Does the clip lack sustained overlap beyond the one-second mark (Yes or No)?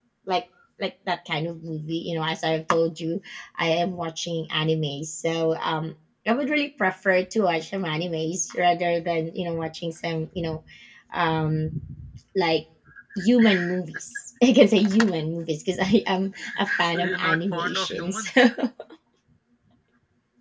No